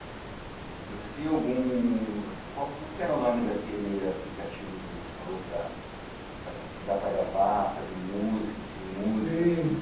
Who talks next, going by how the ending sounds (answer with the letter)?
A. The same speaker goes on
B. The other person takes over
B